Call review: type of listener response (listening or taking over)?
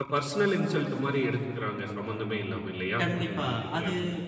taking over